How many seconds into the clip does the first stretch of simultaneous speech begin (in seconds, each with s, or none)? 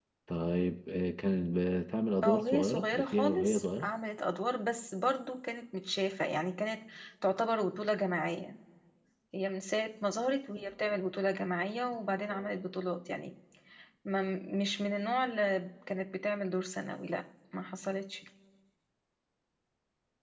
2.2 s